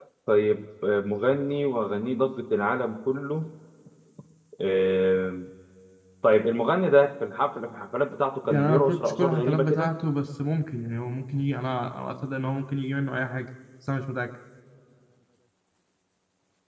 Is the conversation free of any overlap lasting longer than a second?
No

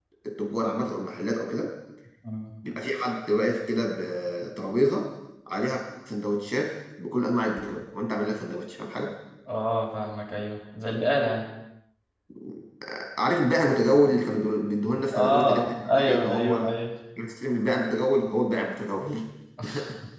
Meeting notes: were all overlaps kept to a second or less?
No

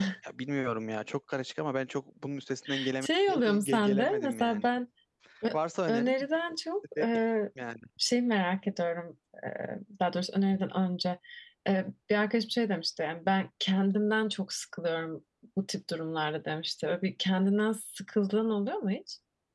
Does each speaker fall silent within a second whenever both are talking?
No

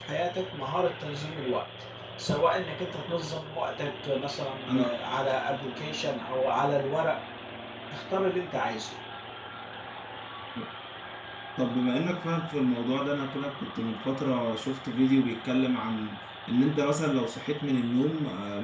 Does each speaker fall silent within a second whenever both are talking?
Yes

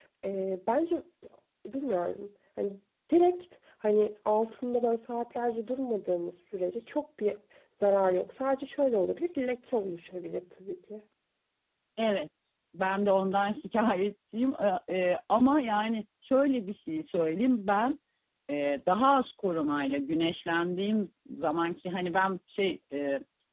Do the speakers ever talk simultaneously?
No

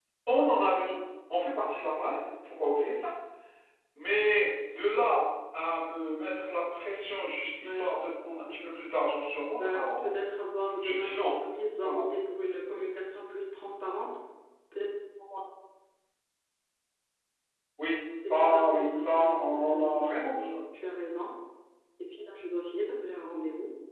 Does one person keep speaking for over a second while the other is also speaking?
Yes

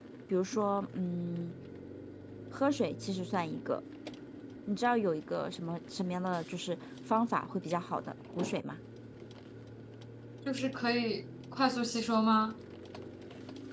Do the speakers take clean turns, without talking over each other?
Yes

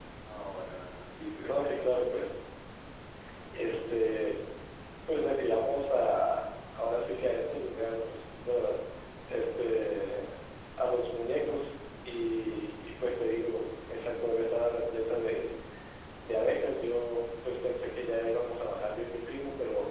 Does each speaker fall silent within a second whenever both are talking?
Yes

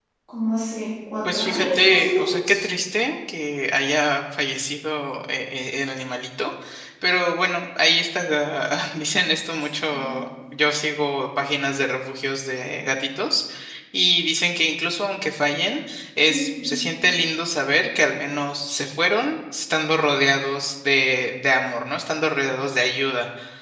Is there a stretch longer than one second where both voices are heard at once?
Yes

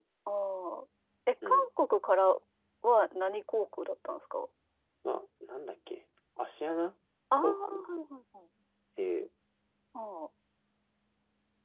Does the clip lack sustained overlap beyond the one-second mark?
Yes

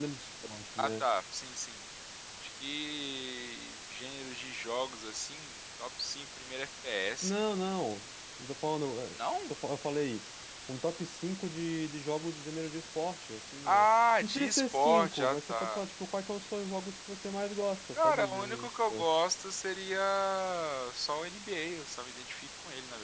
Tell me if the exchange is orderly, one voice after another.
No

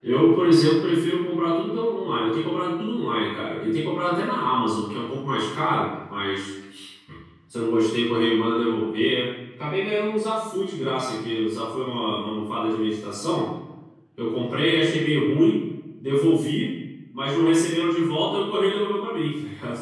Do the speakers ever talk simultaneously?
No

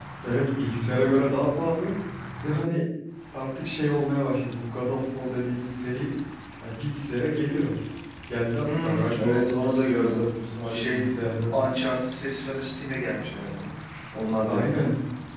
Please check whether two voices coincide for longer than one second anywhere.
Yes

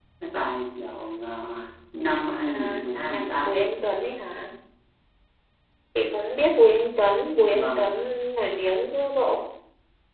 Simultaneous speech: Yes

